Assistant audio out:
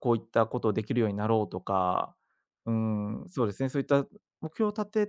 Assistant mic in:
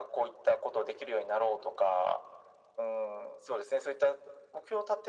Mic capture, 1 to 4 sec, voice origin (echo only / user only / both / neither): echo only